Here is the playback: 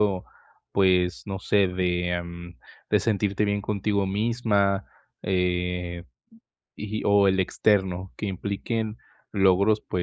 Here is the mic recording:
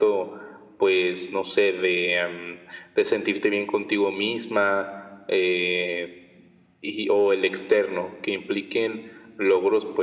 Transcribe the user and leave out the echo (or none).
none